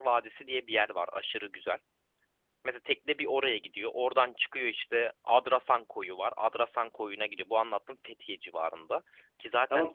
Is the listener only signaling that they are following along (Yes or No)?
No